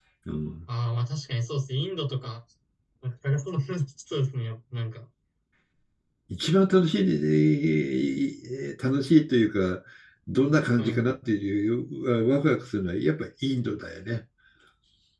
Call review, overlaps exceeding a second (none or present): none